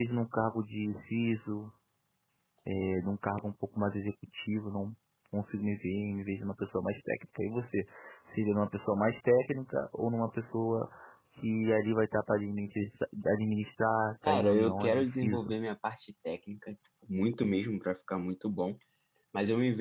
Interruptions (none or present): present